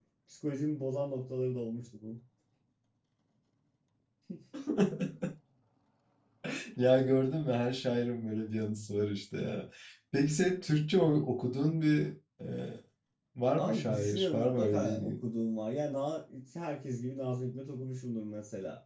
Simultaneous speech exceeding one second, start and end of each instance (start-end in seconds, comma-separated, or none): 13.6-15.2